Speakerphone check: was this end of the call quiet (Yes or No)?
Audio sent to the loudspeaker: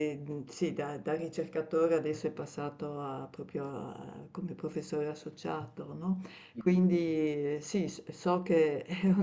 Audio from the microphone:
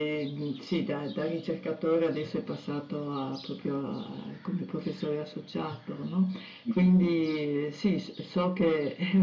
Yes